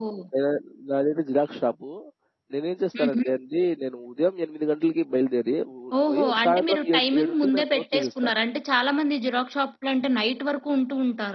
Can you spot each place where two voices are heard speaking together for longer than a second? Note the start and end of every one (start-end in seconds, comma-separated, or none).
6.1-8.3